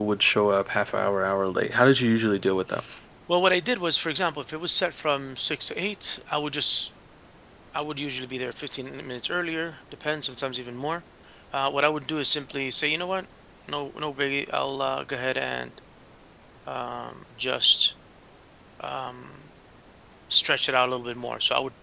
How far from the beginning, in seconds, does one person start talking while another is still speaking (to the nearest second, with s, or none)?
none